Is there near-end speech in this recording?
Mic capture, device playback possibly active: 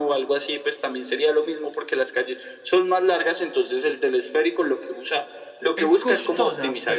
Yes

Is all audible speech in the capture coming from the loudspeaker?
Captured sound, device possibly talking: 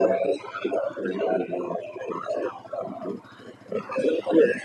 Yes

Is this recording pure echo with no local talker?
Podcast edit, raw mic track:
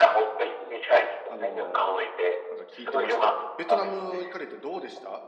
No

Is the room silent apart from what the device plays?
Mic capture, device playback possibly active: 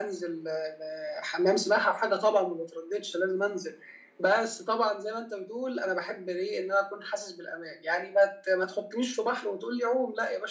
Yes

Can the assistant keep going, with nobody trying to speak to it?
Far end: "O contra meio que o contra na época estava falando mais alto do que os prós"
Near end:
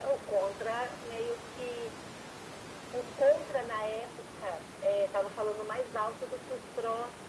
Yes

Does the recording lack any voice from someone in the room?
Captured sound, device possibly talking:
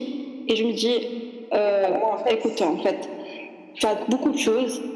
No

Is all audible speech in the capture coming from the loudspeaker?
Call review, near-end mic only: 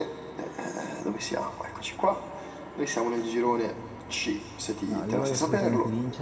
No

